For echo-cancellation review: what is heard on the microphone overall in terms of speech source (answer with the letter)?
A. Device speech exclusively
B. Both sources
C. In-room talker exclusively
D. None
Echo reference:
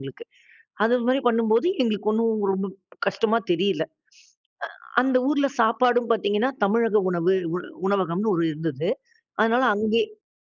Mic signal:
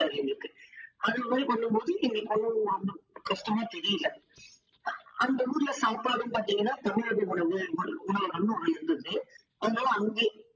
A